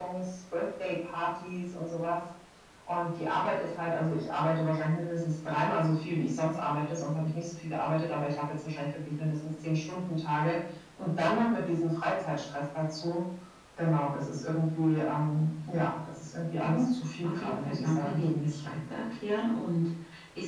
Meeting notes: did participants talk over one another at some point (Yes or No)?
Yes